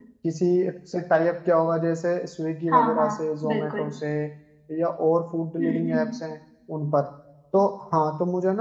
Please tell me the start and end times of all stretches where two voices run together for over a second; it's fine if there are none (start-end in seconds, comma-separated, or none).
2.7-3.9